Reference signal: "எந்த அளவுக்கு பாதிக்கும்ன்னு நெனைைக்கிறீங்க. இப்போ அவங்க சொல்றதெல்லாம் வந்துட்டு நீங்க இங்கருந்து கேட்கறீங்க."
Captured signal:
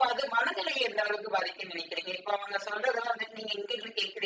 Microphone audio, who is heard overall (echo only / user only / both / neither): echo only